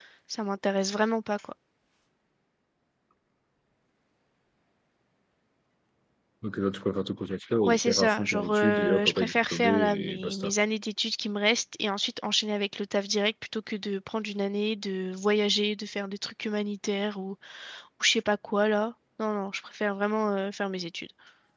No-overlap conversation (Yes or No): No